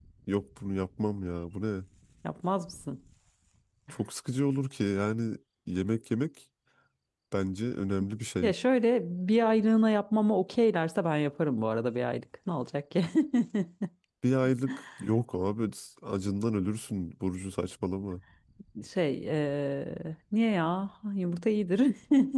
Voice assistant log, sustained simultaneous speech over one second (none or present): none